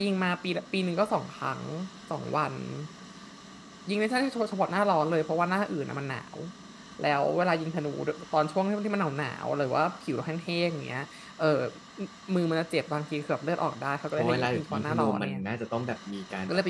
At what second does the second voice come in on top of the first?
14 s

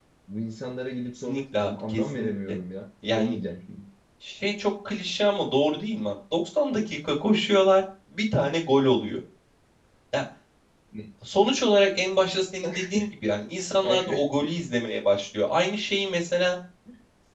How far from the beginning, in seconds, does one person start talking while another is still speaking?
1 s

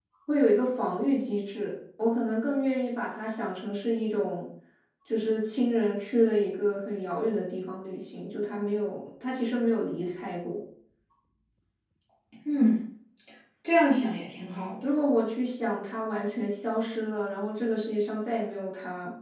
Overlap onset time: none

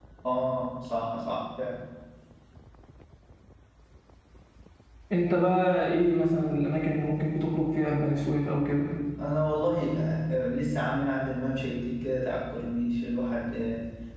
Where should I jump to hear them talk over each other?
none

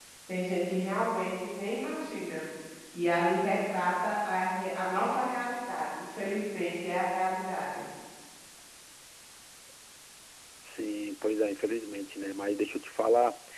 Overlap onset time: none

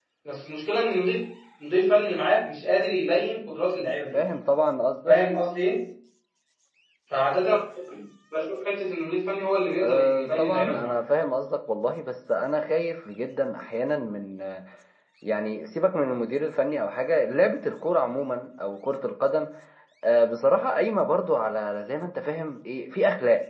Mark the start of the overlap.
10 s

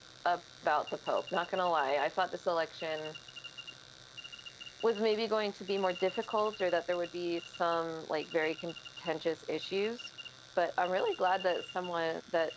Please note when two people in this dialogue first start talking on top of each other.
none

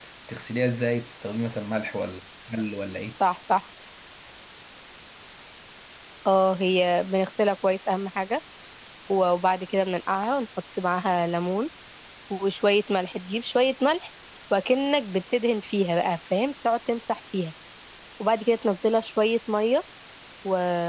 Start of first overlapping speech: none

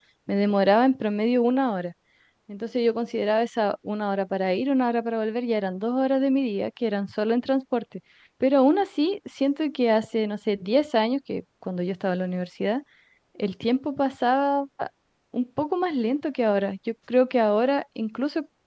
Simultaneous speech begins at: none

